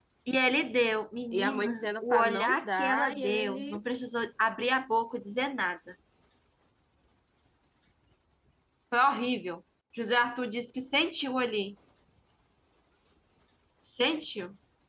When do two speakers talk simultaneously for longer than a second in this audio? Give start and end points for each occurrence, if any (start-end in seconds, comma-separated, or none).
1.3-3.8